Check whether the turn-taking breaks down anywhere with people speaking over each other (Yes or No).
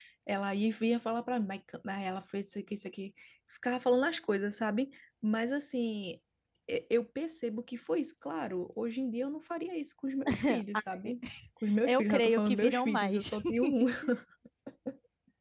Yes